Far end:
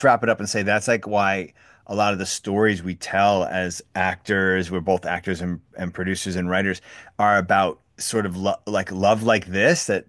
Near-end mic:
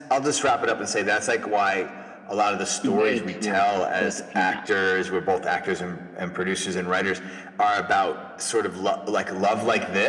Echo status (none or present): present